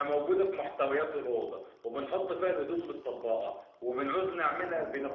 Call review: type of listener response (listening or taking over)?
listening